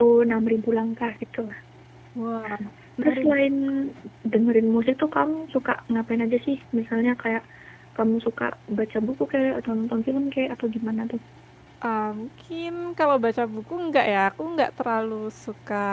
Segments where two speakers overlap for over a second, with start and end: none

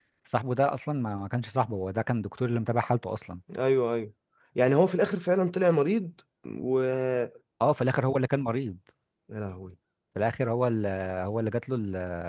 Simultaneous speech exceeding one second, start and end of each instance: none

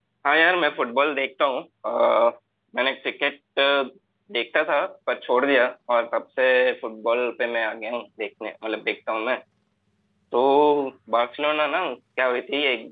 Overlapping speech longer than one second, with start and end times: none

